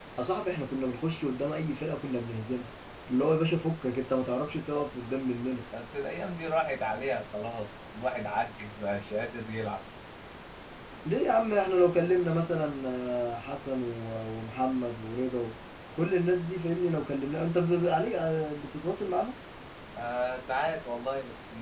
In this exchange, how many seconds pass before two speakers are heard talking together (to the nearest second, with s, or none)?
none